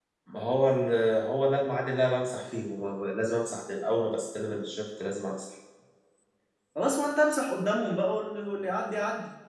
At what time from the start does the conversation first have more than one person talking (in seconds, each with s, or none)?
none